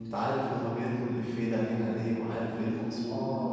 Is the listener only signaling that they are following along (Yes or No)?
No